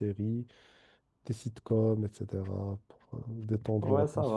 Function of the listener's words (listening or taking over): taking over